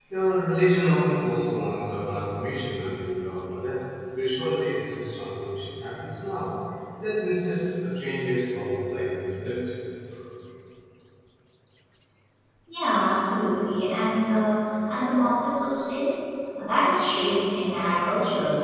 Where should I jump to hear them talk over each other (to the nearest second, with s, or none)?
none